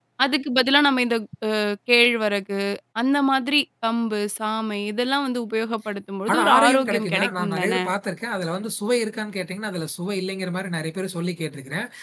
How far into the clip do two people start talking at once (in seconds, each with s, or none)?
6.3 s